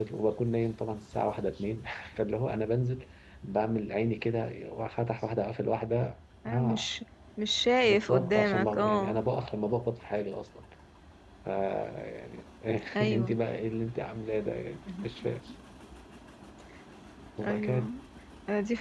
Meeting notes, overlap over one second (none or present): present